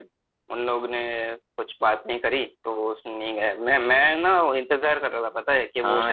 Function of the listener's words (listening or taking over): taking over